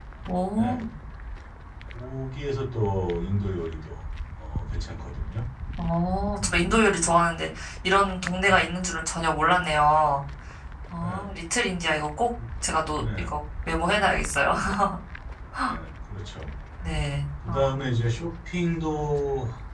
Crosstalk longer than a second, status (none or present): none